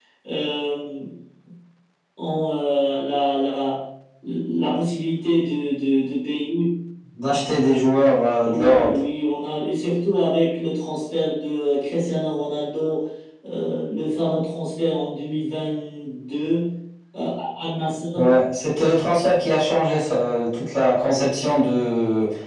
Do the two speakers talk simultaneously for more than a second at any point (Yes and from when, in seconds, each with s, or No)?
No